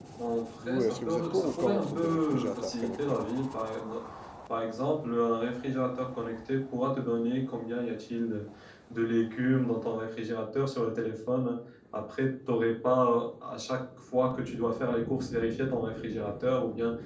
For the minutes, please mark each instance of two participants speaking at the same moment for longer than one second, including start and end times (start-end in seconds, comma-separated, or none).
0.6-3.0